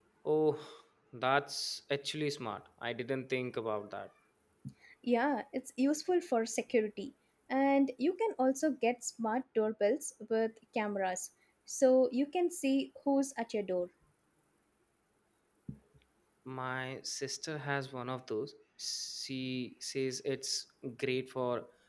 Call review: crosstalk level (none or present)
none